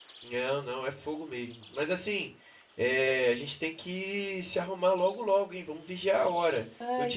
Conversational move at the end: listening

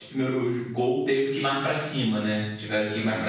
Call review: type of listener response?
listening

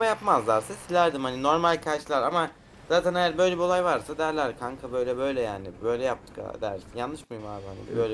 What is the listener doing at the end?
taking over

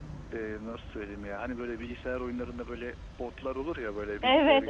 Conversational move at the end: taking over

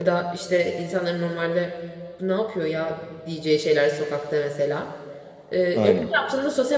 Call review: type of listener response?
listening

